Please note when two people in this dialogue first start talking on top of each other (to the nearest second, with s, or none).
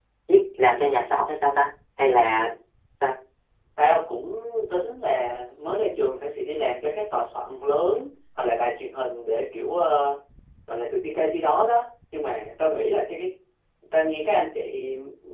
none